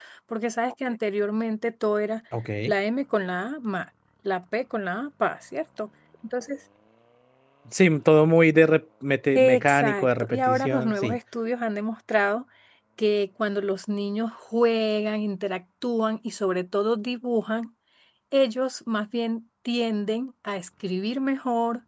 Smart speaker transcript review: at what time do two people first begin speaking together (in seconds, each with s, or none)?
9.3 s